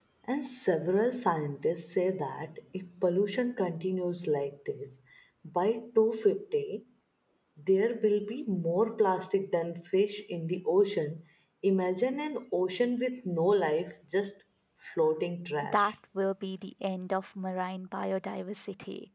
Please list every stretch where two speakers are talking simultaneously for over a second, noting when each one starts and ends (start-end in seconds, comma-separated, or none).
none